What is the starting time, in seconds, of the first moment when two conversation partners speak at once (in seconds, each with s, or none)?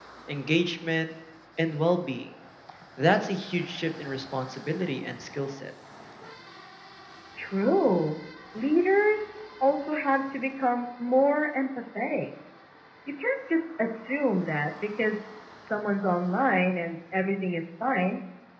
none